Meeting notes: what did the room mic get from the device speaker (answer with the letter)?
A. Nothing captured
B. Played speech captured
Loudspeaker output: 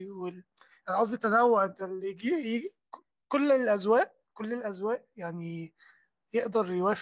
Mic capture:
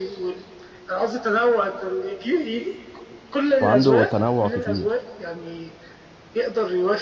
B